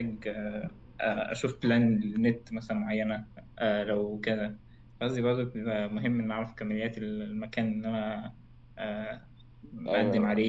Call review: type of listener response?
taking over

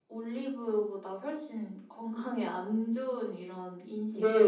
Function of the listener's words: taking over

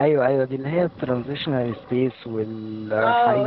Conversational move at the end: taking over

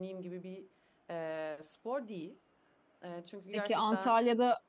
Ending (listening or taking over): taking over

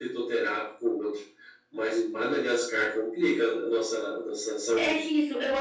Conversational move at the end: taking over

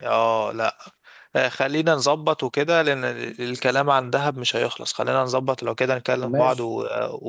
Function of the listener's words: listening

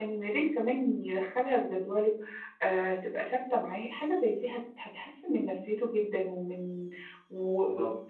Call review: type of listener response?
listening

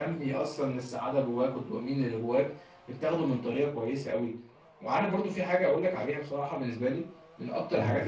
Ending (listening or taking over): listening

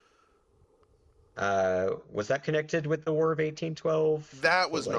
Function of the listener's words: taking over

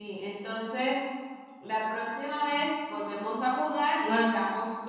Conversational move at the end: listening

